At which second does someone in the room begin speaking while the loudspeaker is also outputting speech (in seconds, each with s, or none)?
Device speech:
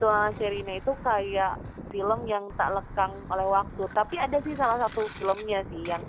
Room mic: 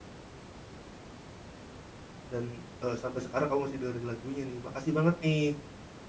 2.3 s